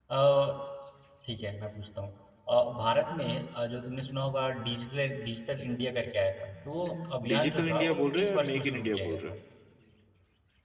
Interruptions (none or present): present